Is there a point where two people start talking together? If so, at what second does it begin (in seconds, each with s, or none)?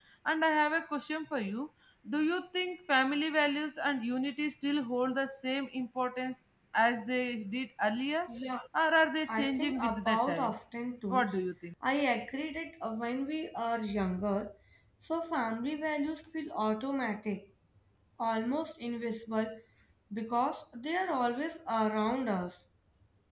9.3 s